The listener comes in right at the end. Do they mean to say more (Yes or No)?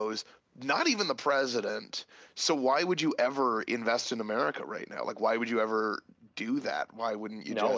Yes